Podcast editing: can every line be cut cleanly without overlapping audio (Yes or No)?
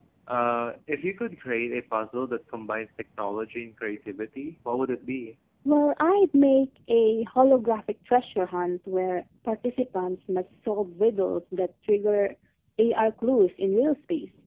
Yes